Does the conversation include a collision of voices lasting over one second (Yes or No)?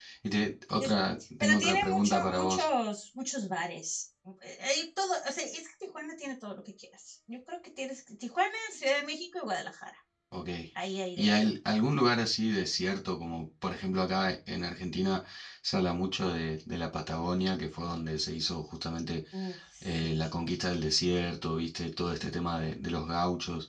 Yes